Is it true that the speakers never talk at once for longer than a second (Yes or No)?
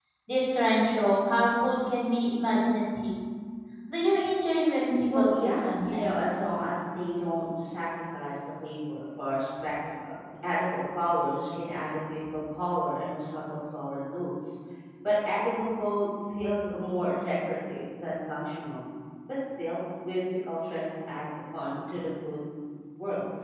No